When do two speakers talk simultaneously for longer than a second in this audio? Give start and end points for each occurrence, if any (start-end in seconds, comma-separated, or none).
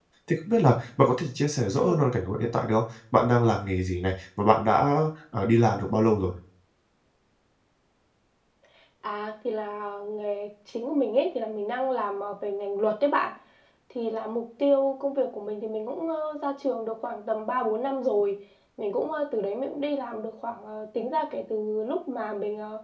none